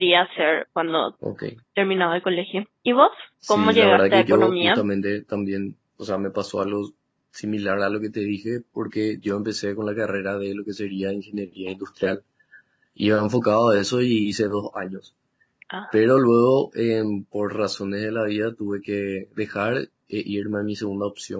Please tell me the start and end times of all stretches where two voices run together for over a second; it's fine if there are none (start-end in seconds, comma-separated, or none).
3.5-4.8